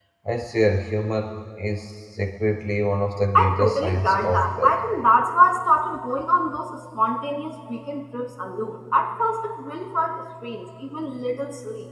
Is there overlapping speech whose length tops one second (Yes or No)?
Yes